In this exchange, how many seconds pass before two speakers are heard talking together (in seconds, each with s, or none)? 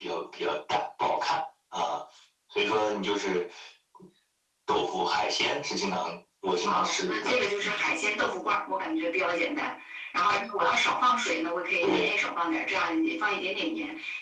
6.7 s